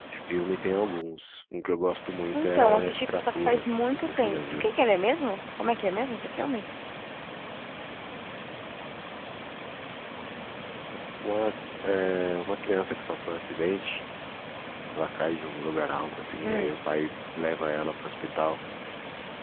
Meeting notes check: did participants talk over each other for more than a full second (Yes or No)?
Yes